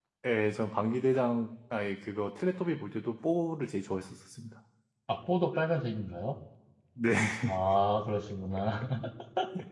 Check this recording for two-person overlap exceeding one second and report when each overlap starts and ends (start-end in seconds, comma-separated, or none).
none